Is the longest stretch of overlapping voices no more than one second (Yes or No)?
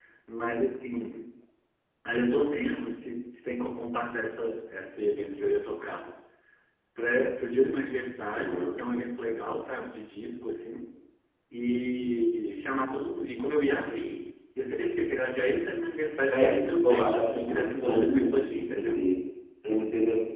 No